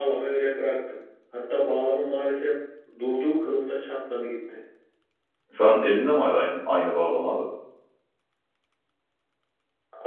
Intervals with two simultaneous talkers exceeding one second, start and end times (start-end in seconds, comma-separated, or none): none